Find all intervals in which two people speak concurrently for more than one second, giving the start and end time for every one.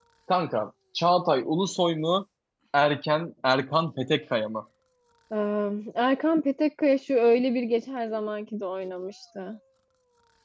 none

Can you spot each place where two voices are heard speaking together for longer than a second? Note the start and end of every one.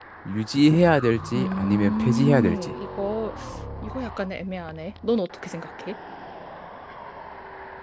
1.3-2.7

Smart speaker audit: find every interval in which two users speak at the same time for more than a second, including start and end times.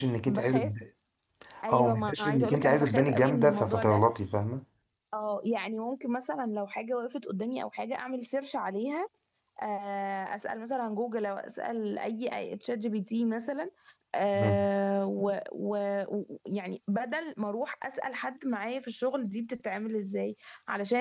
1.7-4.0

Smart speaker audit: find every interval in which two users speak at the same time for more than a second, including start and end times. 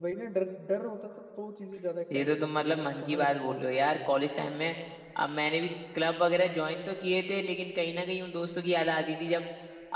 2.1-3.6

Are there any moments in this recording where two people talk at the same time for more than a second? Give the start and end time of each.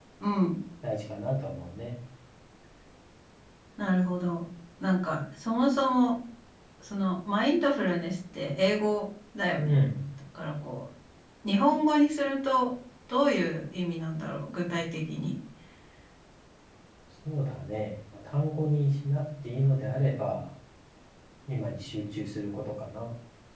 none

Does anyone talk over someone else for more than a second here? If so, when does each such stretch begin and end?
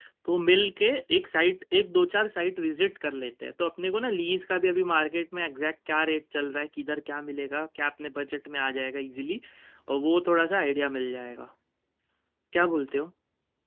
none

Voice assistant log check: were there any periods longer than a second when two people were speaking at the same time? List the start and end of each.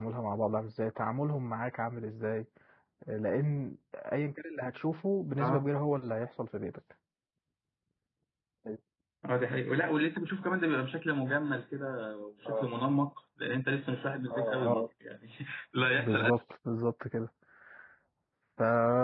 none

